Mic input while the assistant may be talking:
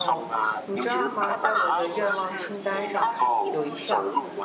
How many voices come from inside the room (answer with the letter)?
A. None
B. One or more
B